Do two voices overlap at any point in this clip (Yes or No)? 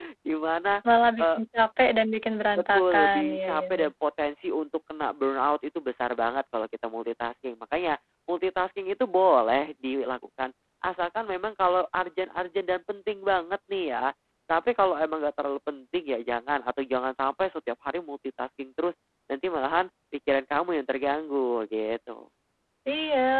Yes